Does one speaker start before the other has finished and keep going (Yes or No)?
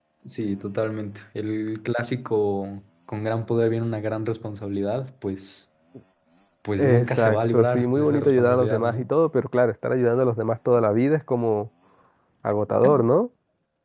Yes